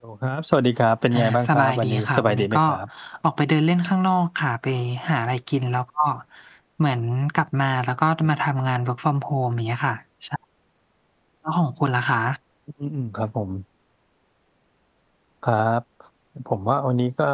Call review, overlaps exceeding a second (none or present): present